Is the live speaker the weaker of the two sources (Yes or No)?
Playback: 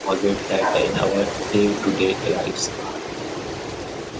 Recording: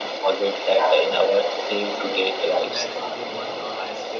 Yes